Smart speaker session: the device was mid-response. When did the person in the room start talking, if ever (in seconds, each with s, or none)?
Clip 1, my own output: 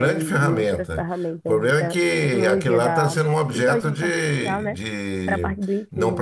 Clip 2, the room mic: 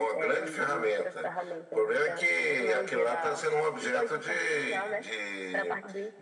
none